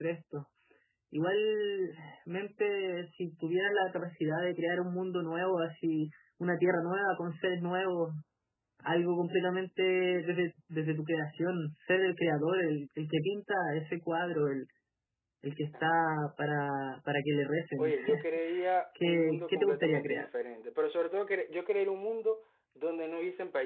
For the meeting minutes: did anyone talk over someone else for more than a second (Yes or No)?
Yes